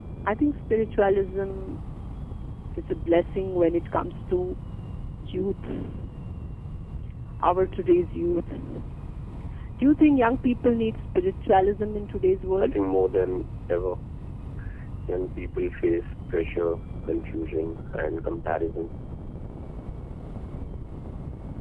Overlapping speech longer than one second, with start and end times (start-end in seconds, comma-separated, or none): none